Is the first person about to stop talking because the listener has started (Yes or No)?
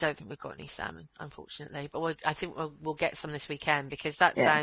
No